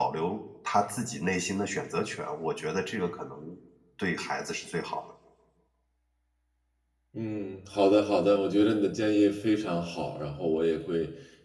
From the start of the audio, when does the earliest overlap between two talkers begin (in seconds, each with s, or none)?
none